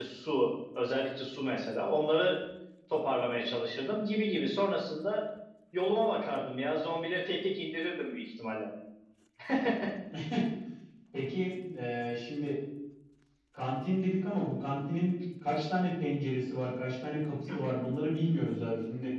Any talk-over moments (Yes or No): No